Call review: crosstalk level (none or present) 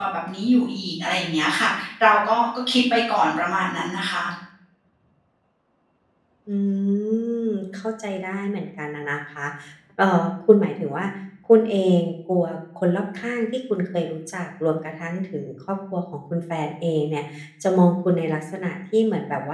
none